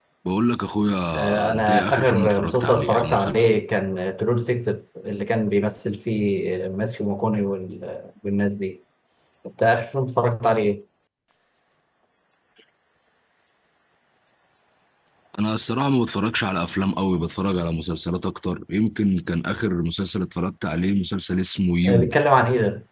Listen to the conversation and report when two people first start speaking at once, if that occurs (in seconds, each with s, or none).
1.2 s